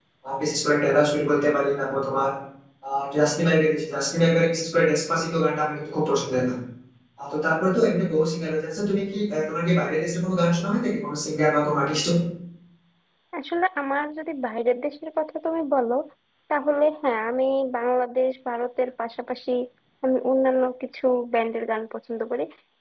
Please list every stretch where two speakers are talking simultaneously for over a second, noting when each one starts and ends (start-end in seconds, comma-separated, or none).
none